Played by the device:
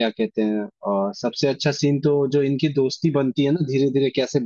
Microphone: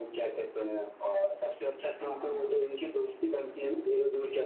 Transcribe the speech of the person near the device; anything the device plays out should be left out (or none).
हाँ हाँ हाँ